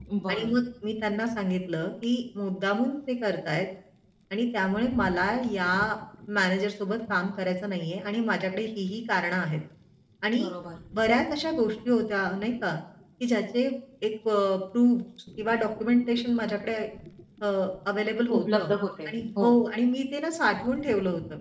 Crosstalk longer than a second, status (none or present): none